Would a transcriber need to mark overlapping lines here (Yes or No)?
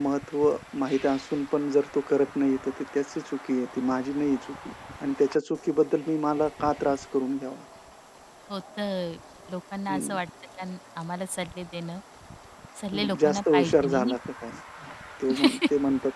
Yes